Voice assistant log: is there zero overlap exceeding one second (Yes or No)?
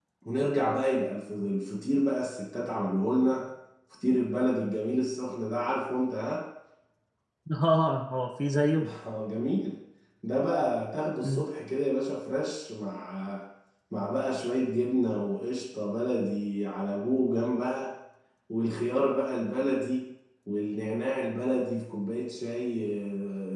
Yes